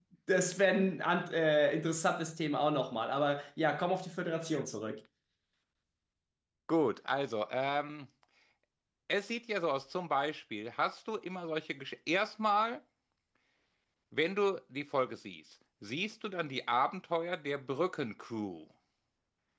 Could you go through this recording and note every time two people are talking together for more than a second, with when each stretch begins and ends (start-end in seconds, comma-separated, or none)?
none